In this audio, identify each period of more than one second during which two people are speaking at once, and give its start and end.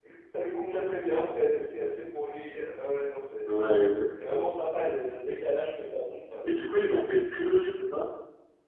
none

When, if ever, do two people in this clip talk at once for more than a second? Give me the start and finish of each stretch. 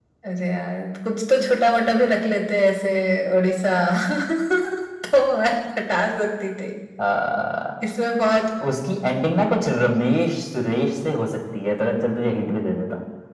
none

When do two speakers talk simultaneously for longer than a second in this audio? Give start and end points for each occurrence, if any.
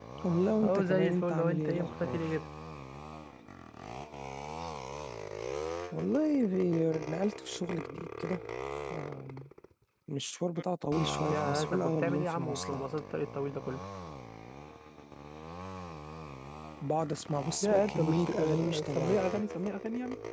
0.6-2.2, 11.3-12.8, 17.6-19.4

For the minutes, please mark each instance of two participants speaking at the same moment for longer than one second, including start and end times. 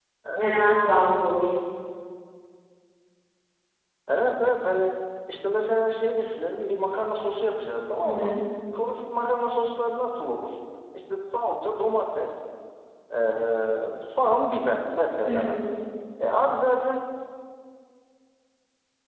none

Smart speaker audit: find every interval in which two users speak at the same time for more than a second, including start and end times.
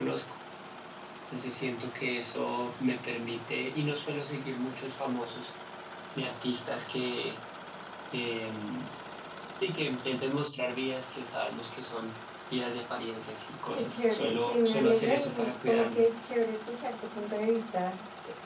13.8-16.0

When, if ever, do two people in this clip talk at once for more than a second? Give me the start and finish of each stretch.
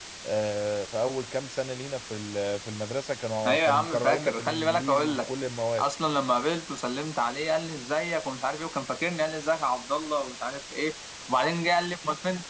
3.5-5.3

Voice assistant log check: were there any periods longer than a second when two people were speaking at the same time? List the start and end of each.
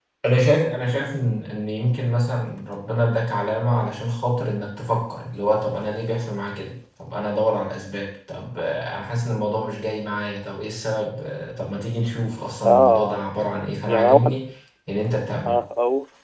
none

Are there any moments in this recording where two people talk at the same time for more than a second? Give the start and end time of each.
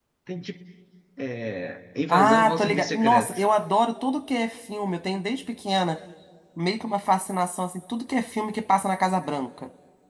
2.1-3.4

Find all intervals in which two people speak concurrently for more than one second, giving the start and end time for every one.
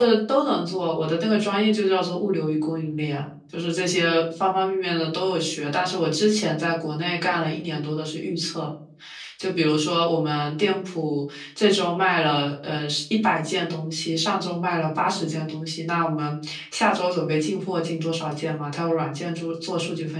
none

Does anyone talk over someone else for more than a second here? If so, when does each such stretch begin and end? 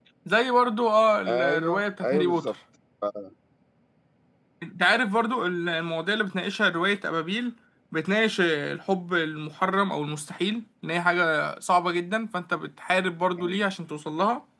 1.3-2.5

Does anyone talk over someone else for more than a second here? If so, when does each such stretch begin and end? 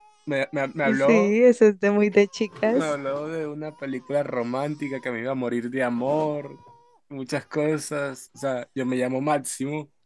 none

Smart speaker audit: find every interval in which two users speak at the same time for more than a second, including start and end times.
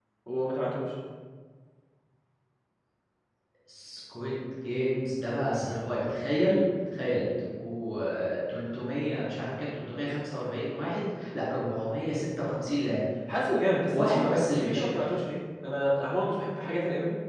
13.9-15.1

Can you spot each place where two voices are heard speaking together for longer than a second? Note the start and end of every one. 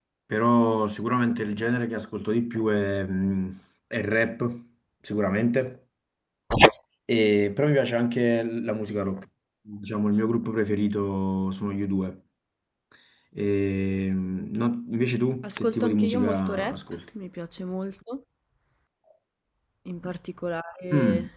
15.4-17.0

